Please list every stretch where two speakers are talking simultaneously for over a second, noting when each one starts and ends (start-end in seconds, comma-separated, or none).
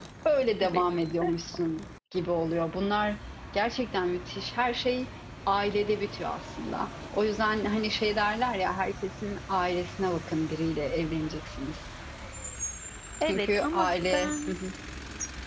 13.2-14.5